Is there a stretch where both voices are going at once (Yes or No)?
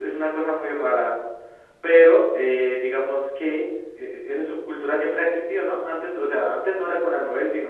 No